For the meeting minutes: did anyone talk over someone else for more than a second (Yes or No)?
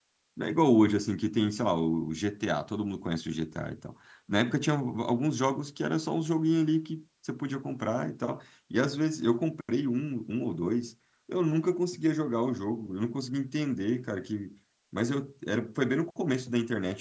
No